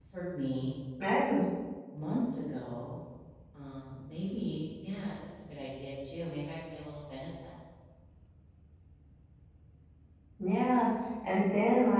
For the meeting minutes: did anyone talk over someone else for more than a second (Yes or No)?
No